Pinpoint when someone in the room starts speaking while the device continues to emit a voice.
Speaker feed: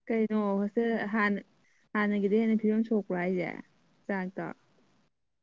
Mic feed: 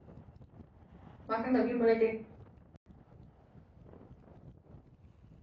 1.3 s

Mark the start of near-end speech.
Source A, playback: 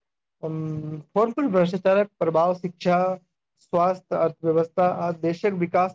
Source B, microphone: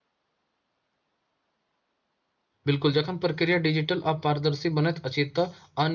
2.6 s

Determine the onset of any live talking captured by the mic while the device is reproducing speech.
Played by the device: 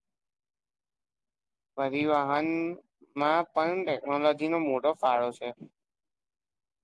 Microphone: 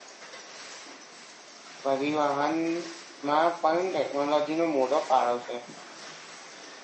none

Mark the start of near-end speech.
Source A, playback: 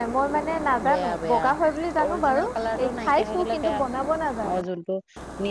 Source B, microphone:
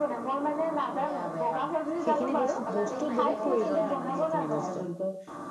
2.0 s

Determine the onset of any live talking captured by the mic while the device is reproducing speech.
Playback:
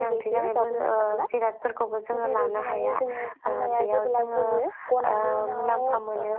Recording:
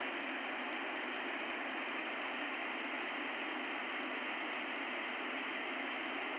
none

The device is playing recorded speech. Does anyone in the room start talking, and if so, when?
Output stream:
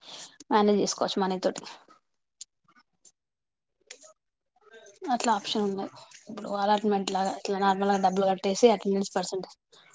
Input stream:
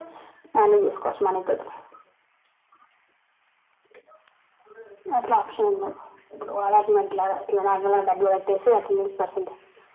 none

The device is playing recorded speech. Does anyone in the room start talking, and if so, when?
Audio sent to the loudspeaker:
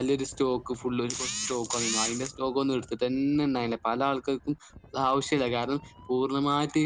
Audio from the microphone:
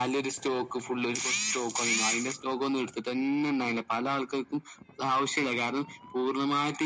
none

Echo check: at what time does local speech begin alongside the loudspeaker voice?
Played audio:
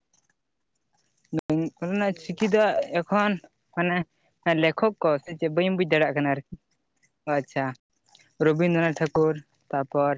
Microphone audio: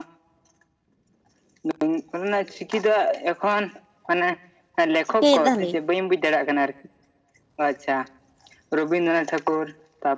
5.0 s

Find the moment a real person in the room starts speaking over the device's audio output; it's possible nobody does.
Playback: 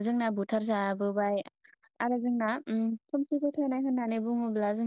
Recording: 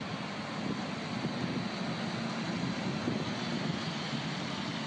none

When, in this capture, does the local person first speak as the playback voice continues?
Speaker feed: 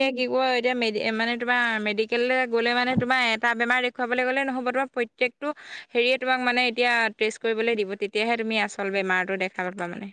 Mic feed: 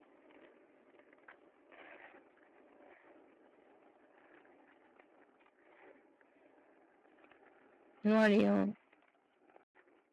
8.1 s

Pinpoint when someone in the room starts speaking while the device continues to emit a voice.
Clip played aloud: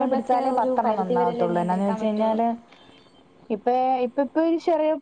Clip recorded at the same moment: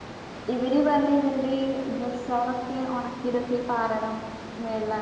0.5 s

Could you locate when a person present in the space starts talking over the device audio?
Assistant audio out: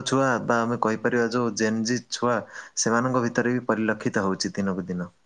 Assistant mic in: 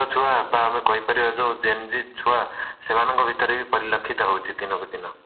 none

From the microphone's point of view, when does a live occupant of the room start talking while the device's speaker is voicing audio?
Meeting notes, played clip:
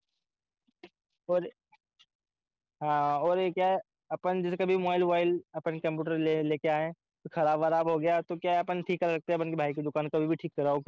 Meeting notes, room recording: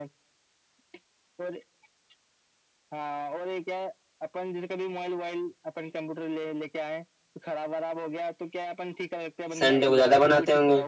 9.6 s

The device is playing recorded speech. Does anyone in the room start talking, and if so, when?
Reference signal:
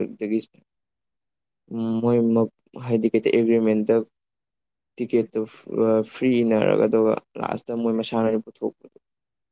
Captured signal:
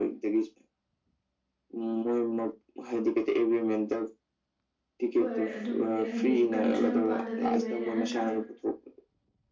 5.2 s

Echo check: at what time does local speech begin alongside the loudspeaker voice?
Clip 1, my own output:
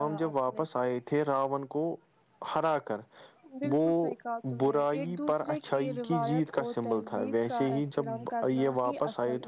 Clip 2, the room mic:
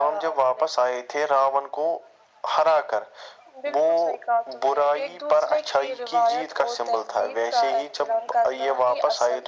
none

